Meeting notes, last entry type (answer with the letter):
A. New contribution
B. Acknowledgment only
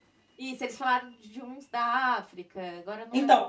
A